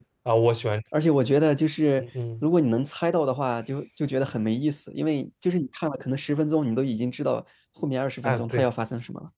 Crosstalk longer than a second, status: none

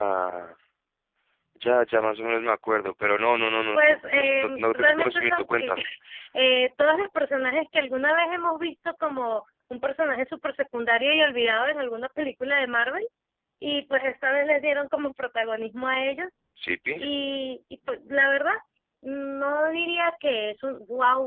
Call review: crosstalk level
present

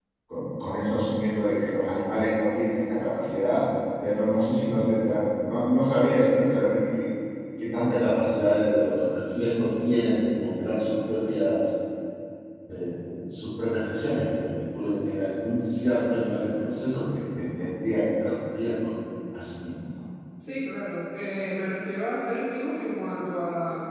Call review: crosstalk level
none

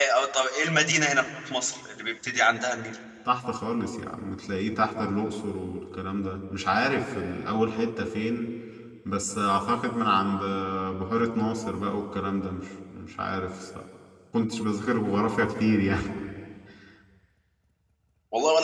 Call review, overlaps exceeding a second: none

